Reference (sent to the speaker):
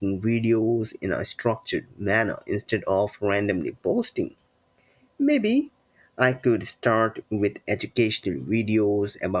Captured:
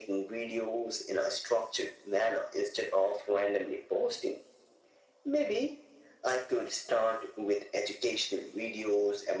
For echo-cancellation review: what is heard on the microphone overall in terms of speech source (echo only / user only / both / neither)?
echo only